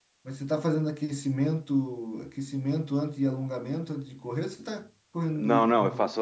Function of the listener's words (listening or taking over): taking over